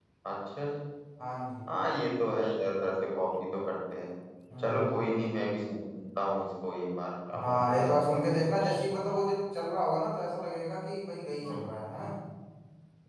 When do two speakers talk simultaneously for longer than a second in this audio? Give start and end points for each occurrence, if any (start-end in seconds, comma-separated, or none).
7.4-8.9